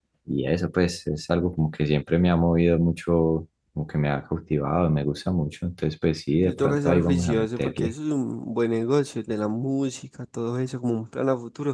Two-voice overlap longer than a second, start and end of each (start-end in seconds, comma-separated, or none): 6.4-7.9